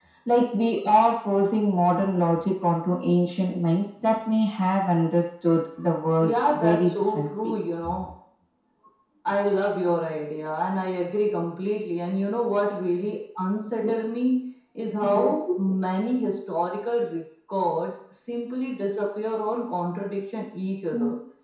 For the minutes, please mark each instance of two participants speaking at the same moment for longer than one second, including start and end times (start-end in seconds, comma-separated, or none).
6.2-7.5